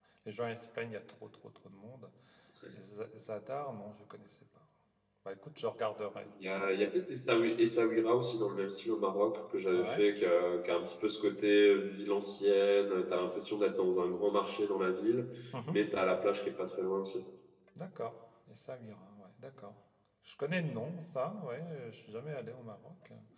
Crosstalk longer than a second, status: none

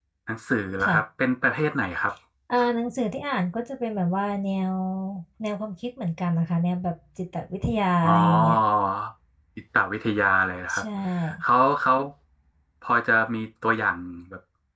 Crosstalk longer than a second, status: none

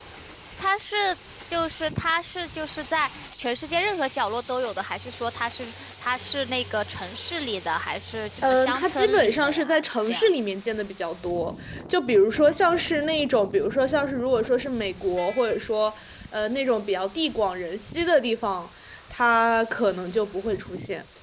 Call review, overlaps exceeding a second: present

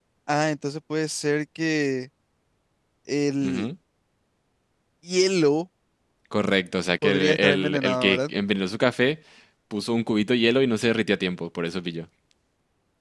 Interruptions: present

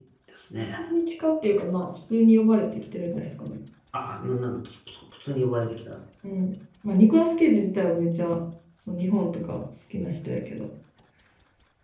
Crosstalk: none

